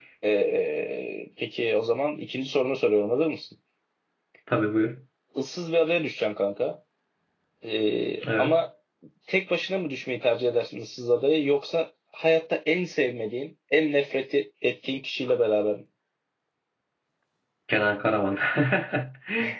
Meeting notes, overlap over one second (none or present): none